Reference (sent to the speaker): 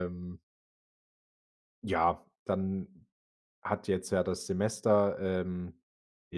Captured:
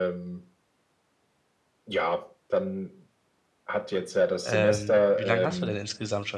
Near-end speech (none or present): present